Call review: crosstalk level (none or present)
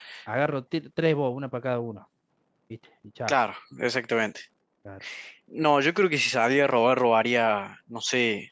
none